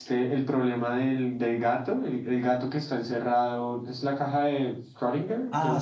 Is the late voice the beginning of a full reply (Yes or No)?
Yes